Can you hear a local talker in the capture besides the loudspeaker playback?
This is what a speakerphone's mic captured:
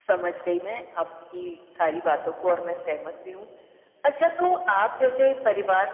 No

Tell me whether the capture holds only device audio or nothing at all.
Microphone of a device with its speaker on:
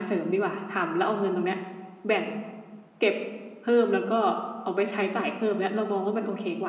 Yes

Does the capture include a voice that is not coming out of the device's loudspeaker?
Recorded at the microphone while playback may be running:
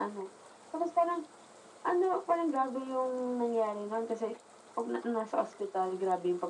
No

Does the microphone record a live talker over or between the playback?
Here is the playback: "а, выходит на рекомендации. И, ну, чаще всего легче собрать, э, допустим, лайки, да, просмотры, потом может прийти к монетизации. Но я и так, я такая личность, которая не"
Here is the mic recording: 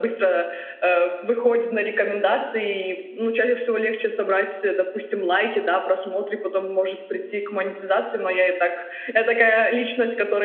No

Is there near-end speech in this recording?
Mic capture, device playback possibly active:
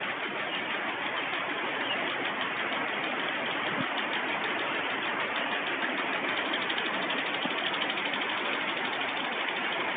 No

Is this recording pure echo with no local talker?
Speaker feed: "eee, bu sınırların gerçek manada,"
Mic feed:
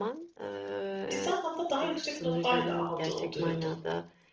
No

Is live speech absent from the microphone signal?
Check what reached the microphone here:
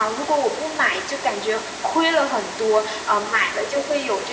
Yes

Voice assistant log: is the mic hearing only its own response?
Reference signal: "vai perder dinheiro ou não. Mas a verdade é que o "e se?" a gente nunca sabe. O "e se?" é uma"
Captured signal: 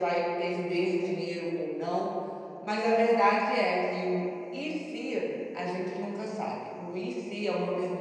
Yes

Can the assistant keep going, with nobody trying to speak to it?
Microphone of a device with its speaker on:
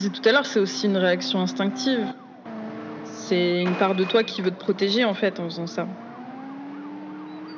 Yes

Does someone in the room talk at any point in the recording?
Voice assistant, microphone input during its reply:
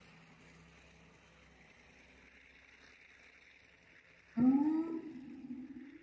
Yes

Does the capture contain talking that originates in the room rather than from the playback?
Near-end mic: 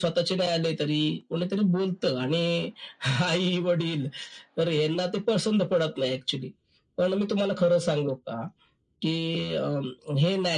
No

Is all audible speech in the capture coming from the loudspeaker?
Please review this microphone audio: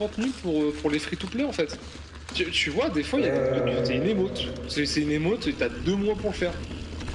No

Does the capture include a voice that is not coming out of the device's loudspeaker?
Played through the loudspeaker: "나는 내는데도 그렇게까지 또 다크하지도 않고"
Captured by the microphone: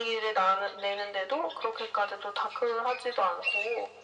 No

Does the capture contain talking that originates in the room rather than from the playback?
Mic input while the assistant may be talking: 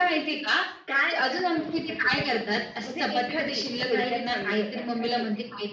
No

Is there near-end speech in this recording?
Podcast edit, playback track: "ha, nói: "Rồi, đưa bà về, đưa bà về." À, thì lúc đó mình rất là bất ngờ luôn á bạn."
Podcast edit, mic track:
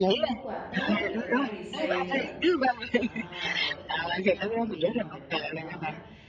Yes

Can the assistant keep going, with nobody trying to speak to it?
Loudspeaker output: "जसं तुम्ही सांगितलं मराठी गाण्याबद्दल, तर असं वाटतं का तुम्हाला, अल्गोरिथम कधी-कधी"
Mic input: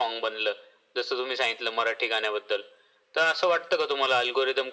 Yes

